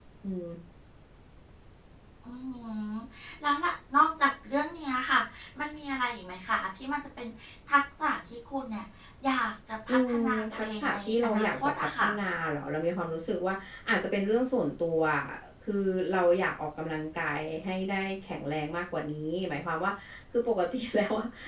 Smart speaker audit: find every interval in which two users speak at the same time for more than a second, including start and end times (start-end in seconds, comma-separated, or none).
9.9-12.1